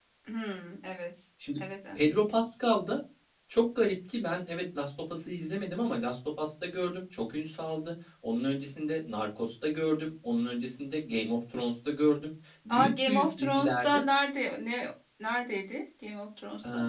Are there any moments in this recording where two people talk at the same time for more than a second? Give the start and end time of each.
12.8-14.0

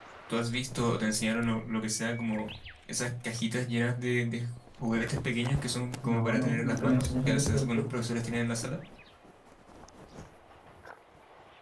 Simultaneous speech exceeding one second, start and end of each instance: 6.0-7.9

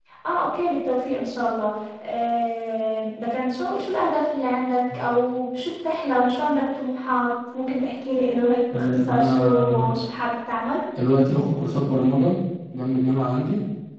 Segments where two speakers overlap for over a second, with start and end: 8.7-9.9

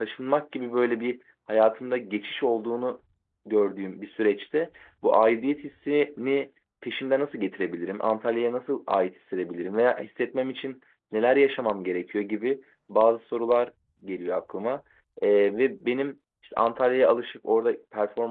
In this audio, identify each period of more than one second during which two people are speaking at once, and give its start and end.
none

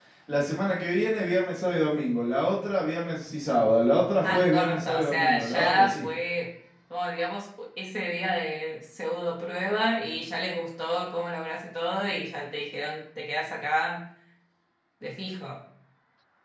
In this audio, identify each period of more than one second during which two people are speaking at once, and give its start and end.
4.2-6.1

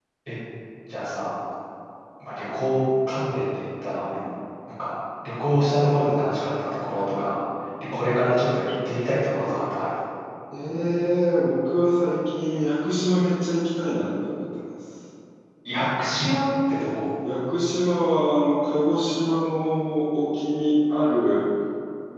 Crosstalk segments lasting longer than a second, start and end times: none

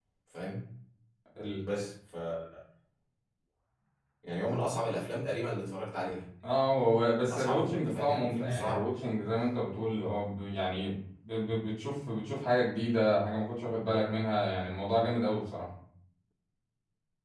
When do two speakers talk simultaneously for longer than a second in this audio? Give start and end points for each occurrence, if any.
7.3-8.9

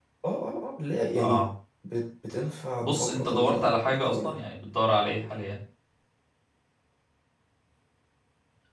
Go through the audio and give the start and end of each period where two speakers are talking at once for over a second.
2.8-4.3

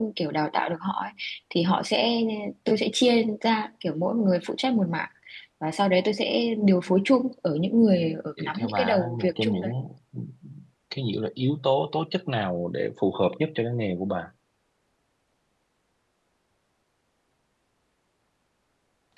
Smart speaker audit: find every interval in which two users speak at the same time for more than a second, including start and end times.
8.4-9.7

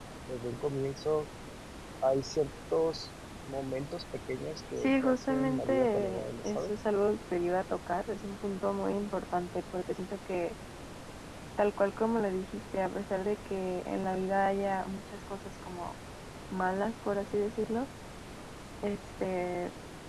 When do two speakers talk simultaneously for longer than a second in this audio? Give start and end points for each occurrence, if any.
4.8-6.7

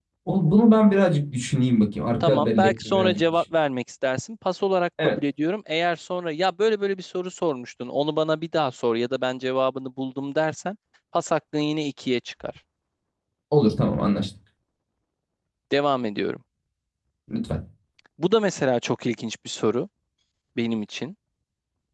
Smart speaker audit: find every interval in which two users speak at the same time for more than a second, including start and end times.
2.2-3.4

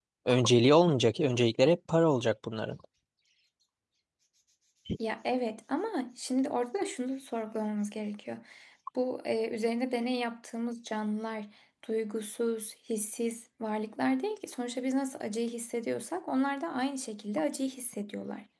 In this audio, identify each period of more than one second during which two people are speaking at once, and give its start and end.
none

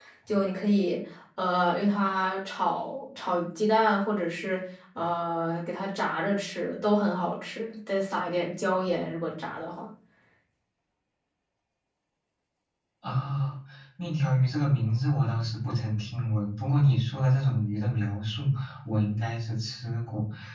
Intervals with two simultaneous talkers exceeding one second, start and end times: none

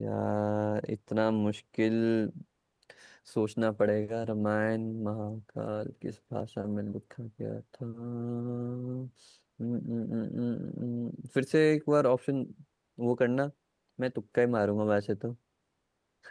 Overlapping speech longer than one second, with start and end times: none

